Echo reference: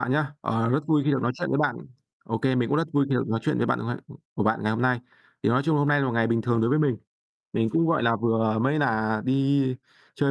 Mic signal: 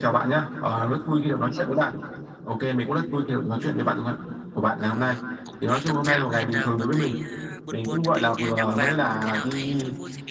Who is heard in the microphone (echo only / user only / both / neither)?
both